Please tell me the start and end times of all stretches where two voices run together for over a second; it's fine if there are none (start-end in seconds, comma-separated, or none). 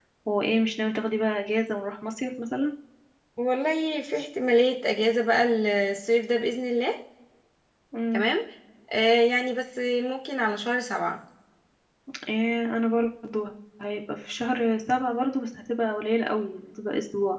none